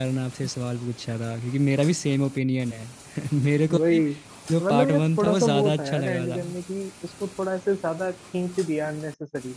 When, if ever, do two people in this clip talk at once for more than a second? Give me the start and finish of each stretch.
4.6-6.4

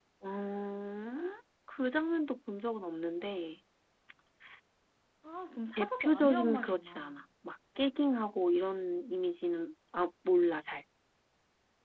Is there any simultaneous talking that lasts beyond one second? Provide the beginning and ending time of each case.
5.8-7.2

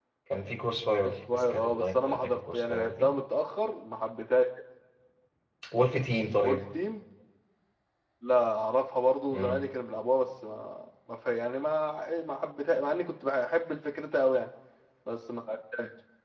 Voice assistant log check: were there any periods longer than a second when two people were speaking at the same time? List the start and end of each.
1.0-3.1

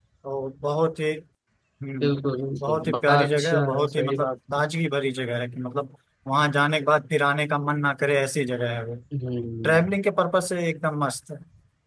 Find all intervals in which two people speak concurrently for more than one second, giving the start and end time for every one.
2.6-4.6

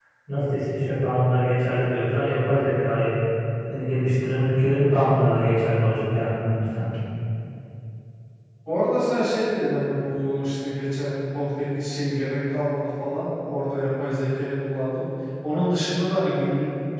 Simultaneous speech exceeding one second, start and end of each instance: none

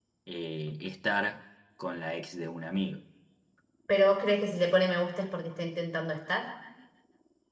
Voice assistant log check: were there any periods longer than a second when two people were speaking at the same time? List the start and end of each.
none

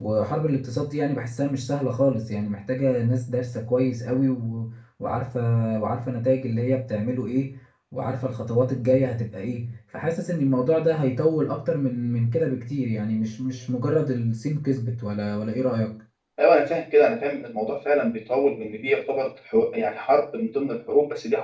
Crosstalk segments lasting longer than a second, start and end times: none

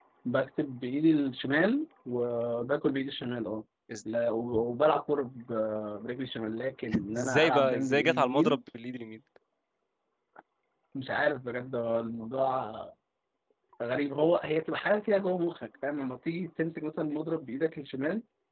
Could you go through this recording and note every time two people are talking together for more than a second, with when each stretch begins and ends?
7.2-8.6

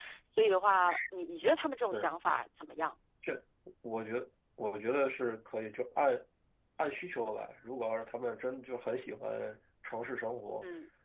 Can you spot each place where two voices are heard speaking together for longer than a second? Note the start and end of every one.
none

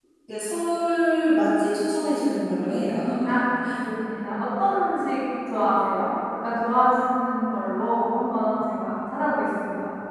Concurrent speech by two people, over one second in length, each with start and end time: none

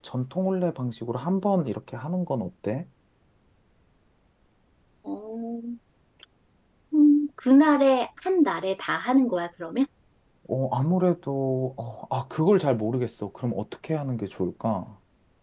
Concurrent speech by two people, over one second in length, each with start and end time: none

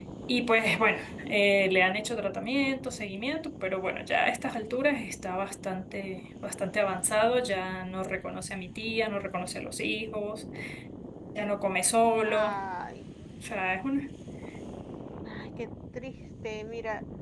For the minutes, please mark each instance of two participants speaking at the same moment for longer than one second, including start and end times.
none

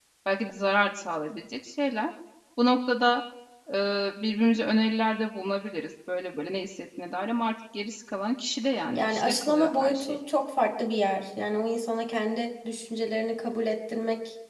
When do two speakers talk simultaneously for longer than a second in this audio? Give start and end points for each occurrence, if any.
8.8-10.2

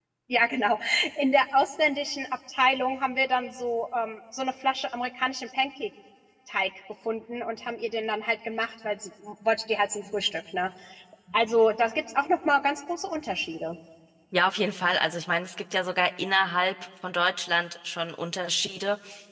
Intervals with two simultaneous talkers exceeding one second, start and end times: none

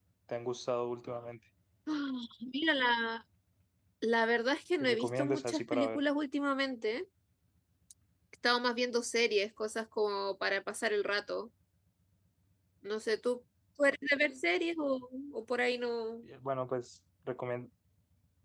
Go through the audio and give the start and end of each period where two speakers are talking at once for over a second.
4.8-6.0

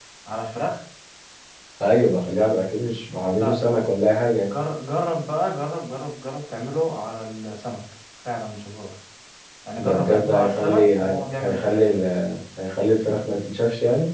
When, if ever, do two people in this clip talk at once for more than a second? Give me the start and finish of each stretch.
9.8-11.0

